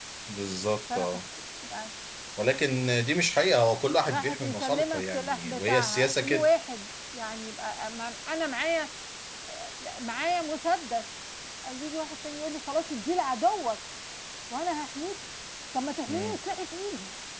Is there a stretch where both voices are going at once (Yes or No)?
Yes